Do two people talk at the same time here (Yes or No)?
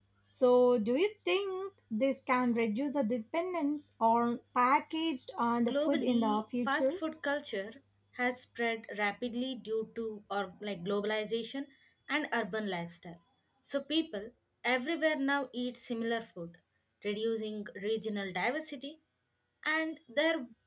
Yes